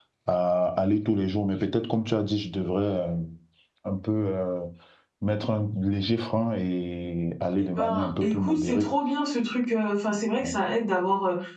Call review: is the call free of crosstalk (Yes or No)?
No